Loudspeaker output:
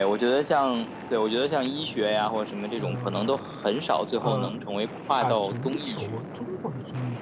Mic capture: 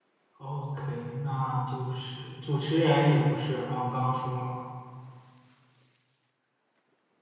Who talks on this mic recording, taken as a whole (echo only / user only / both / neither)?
user only